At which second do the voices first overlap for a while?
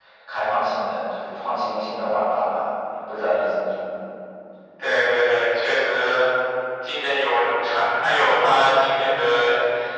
none

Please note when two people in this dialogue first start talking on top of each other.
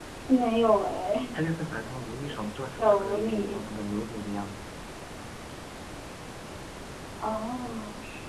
2.3 s

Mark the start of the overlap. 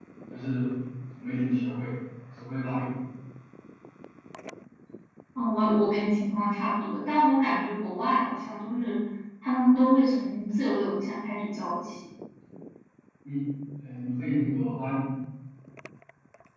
none

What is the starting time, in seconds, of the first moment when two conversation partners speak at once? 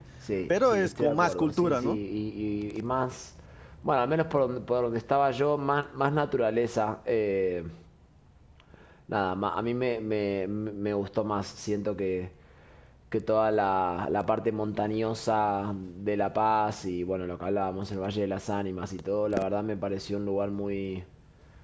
0.5 s

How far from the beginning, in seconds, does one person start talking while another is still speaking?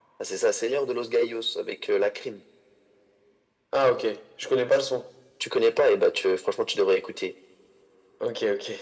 none

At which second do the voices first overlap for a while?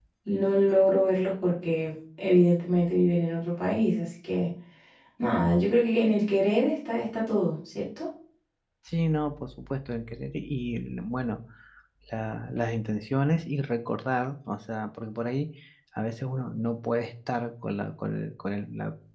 none

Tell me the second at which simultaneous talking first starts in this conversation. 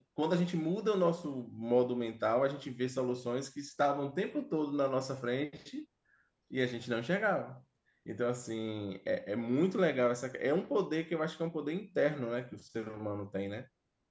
none

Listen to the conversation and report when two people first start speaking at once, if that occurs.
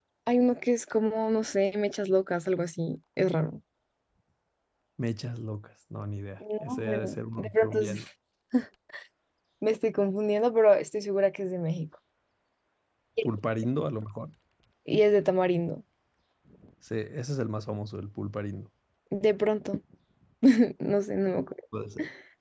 6.4 s

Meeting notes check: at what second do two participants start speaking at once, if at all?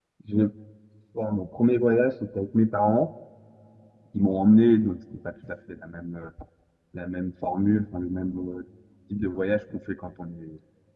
none

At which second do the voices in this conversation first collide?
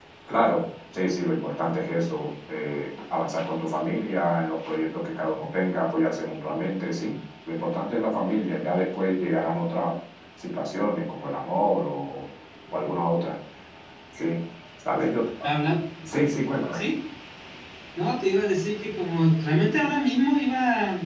none

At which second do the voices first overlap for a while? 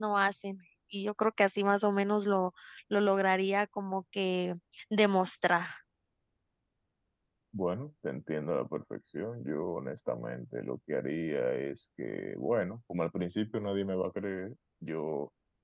none

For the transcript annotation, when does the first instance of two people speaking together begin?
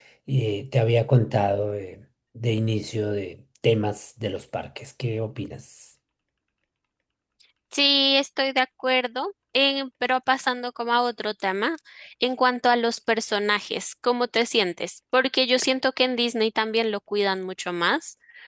none

